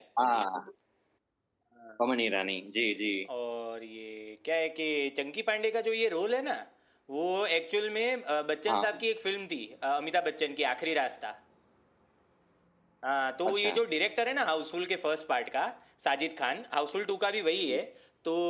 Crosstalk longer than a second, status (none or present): none